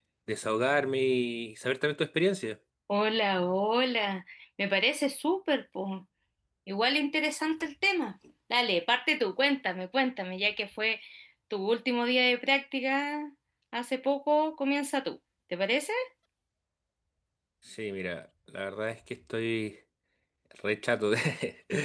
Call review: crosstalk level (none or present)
none